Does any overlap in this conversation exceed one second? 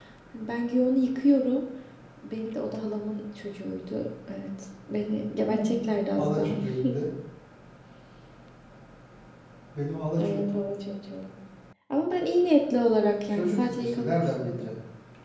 Yes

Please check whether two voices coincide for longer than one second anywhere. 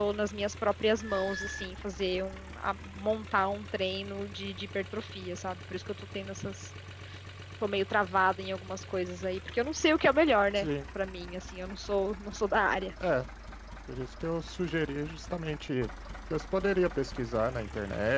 No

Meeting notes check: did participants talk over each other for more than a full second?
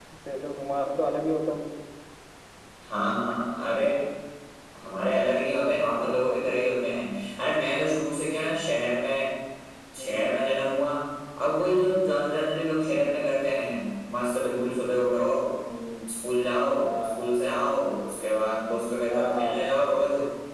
No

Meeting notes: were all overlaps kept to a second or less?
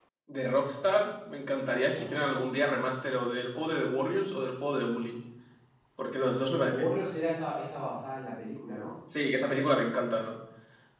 Yes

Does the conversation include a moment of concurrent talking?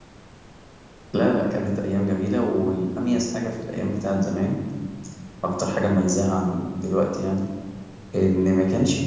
No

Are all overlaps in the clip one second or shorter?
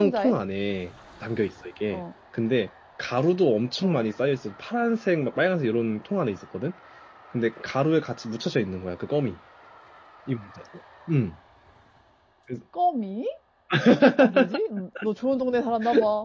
Yes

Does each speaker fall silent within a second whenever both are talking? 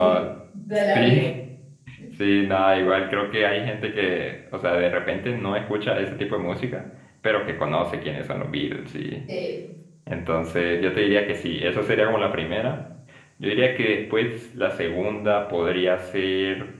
Yes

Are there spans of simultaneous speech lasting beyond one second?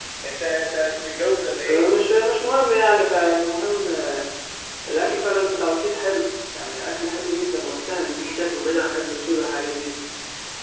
No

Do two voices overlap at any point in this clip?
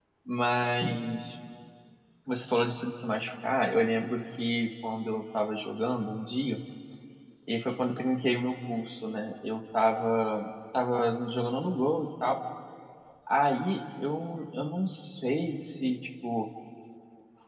No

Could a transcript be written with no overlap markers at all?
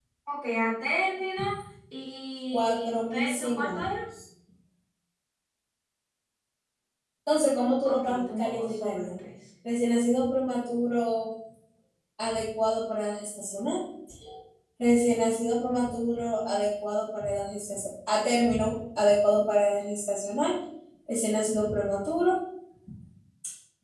No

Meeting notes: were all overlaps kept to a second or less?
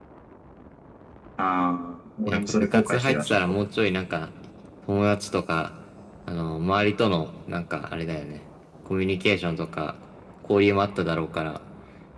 No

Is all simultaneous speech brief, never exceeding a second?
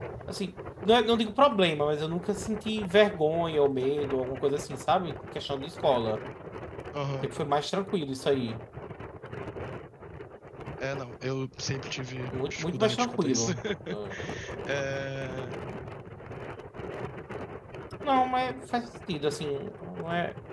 No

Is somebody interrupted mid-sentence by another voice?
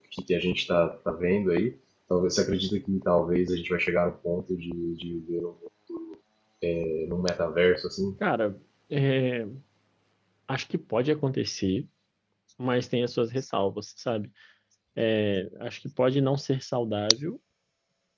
No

